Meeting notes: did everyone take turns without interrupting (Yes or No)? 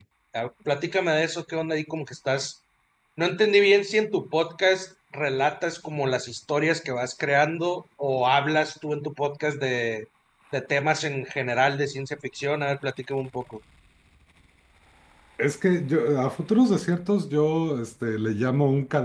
Yes